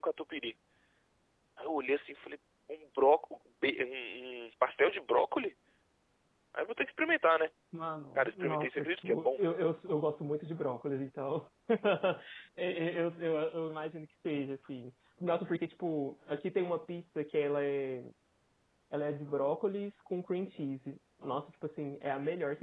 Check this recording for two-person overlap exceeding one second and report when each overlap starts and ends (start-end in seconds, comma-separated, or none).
8.2-9.4